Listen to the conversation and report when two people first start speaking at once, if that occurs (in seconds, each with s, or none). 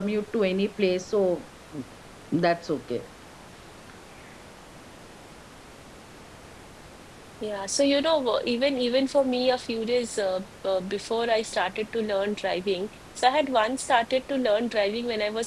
none